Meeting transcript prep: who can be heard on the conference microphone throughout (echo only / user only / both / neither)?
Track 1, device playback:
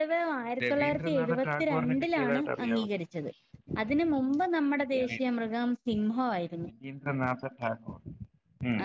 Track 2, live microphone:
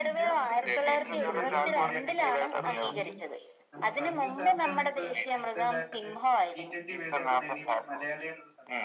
both